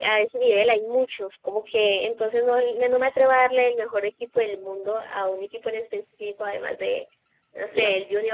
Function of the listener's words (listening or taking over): listening